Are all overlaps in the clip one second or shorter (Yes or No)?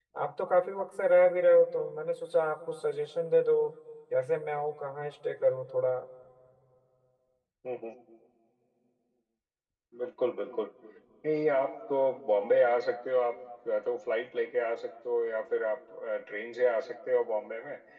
Yes